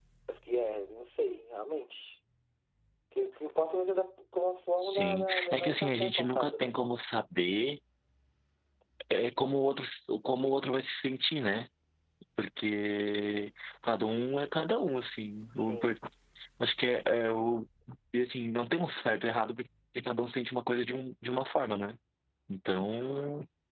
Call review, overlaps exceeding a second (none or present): present